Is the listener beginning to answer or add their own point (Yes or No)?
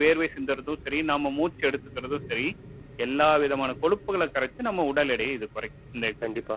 Yes